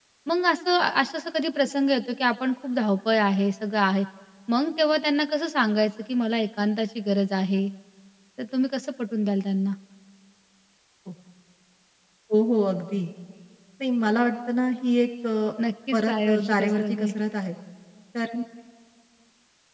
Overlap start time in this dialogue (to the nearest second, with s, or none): 16 s